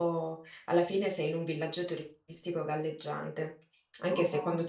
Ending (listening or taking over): listening